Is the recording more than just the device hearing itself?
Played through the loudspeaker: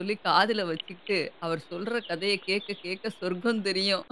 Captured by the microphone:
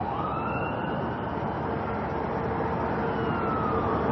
No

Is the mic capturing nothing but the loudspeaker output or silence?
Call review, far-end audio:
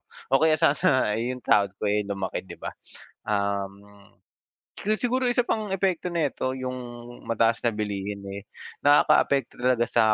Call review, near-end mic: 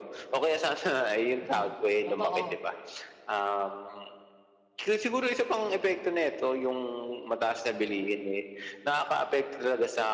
No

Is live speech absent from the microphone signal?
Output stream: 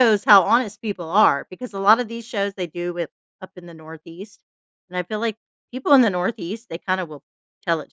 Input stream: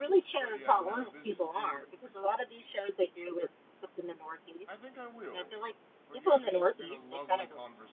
No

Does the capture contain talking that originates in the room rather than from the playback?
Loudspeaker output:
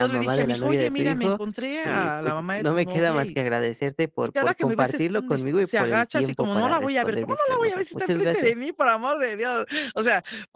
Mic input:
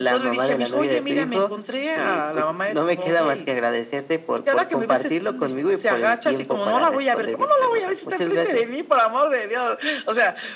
No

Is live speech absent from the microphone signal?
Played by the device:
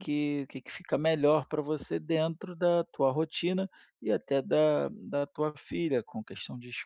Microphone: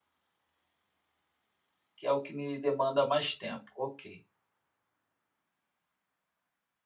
No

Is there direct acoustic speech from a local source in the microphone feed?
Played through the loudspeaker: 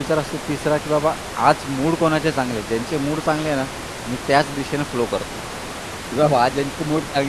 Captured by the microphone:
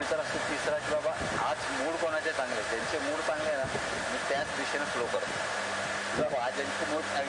No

